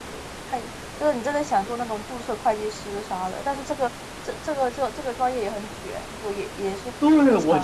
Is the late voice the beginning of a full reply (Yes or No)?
Yes